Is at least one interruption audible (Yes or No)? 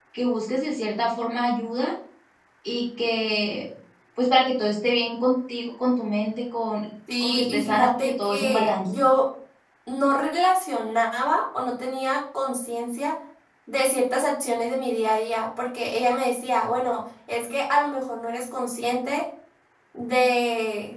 Yes